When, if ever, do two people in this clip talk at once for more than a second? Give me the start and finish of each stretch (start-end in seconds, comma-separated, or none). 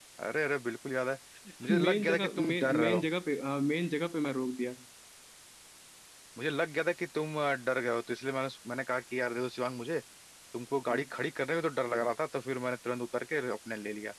1.7-3.0